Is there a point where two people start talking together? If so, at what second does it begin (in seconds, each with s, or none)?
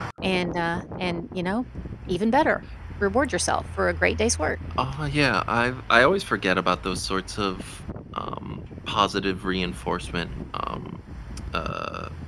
none